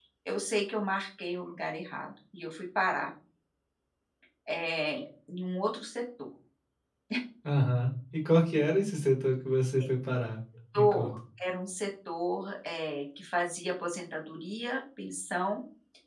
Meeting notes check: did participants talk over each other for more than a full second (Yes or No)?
No